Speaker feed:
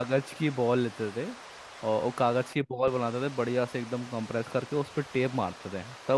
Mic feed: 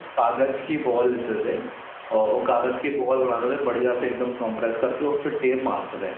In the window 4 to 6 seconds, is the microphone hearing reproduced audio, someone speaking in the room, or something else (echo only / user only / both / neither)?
echo only